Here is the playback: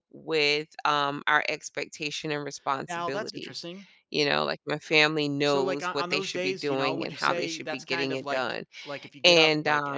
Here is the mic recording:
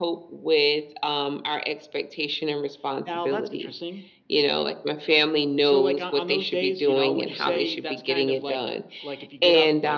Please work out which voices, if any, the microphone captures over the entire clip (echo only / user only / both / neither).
echo only